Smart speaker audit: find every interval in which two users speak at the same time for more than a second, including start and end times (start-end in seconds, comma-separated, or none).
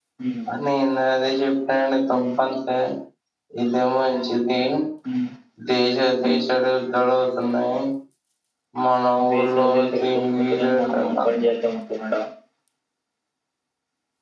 9.3-11.4